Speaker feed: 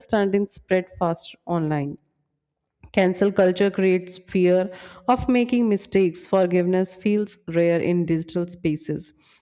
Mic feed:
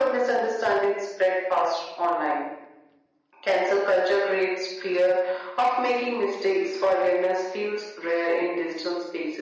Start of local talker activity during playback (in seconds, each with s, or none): none